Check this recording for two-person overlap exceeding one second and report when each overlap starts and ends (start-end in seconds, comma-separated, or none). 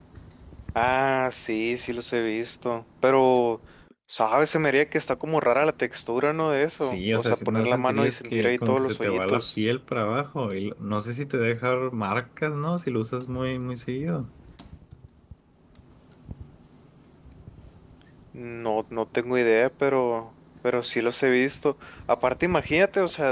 6.8-9.4